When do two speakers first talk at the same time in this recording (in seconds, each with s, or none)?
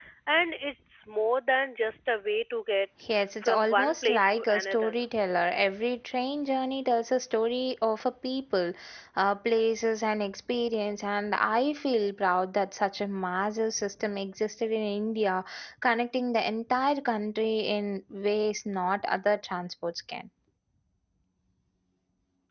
3.4 s